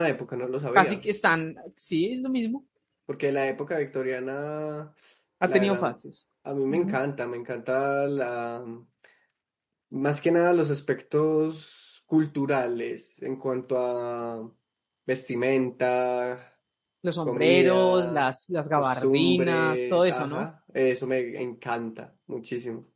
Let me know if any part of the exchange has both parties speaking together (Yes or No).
Yes